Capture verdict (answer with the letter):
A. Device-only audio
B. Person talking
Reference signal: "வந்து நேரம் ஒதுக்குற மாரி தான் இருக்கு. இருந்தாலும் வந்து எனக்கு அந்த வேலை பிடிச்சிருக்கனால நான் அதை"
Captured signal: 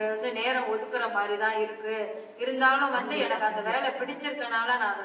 B